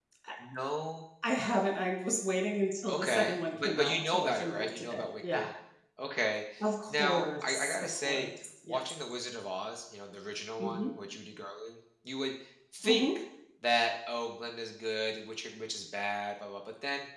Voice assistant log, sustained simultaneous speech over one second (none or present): present